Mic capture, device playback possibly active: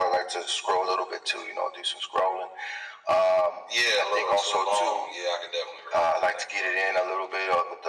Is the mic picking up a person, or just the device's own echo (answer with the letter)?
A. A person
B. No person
B